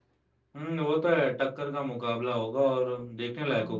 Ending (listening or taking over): taking over